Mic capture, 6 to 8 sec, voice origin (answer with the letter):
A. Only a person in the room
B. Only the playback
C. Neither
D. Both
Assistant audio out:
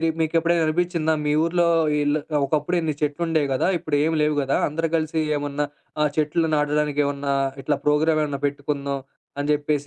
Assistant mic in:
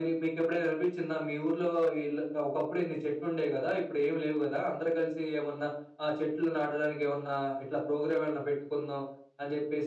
B